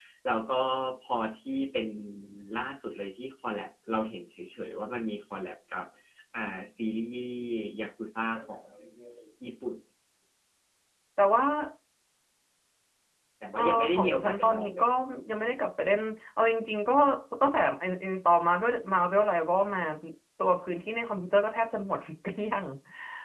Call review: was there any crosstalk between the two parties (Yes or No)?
Yes